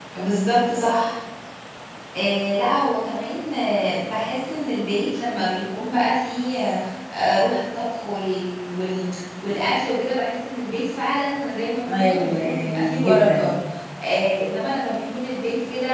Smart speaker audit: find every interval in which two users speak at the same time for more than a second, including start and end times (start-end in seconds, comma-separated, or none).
11.8-13.6